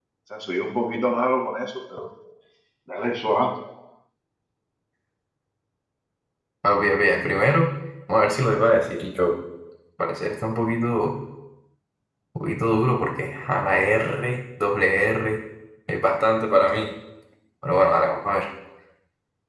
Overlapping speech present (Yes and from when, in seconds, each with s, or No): No